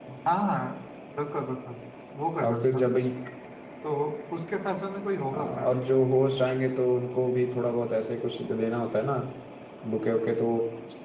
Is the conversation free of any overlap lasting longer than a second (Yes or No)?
Yes